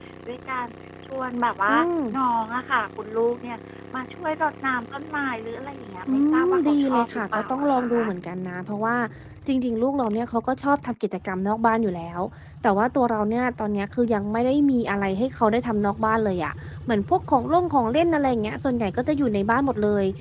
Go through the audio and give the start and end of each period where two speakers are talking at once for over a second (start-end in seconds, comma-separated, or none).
6.1-7.9